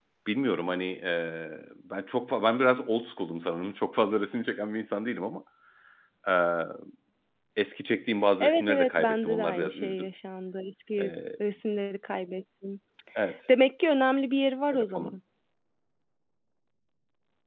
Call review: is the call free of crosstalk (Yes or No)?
No